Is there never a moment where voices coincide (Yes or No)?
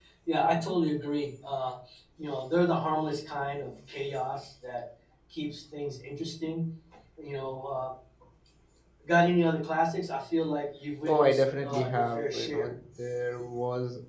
No